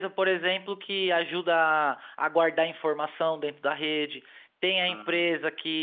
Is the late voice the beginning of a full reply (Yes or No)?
No